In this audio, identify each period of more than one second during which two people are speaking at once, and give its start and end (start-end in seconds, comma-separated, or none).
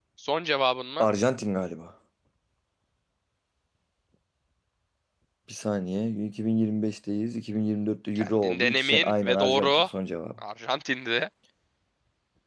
8.2-9.7